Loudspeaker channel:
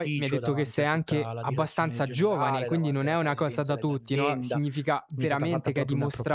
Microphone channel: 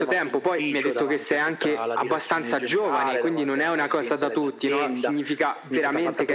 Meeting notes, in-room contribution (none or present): none